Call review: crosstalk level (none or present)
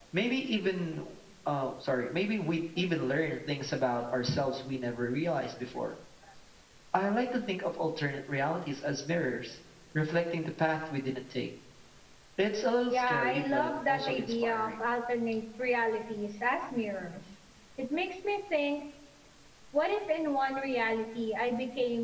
present